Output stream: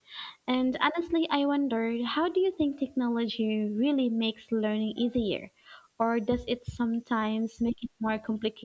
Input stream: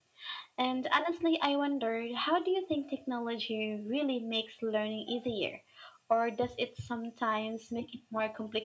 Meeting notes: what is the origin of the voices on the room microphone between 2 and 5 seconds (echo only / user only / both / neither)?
echo only